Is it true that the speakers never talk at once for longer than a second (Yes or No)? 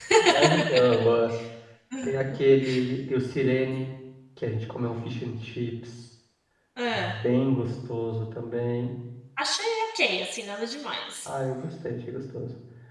Yes